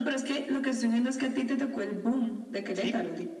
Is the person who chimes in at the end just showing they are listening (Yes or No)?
No